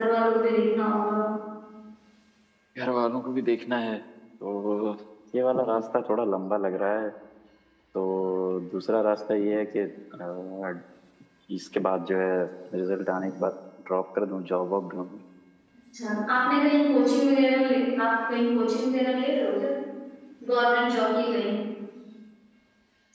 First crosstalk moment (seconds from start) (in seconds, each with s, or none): none